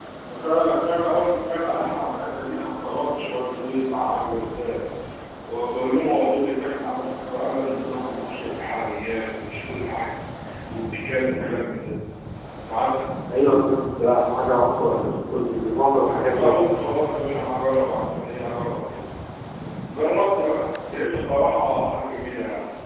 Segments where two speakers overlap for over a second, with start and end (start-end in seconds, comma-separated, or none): none